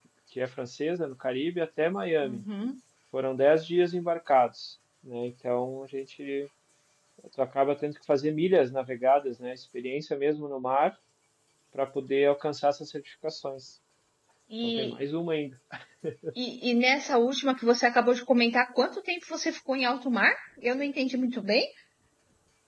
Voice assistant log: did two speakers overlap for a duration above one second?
No

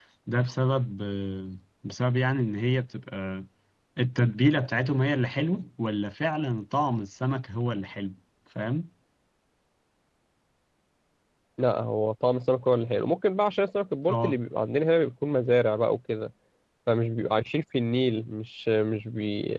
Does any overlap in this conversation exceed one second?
No

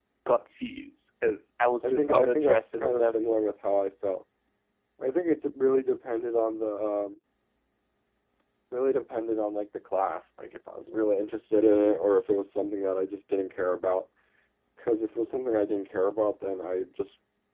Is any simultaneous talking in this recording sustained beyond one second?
Yes, from 1.8 s

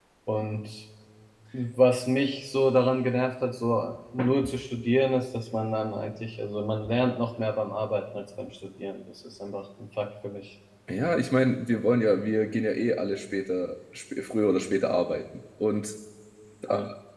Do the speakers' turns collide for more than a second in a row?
No

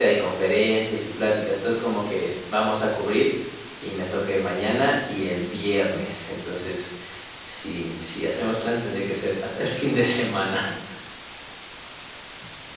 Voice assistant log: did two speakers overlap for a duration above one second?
No

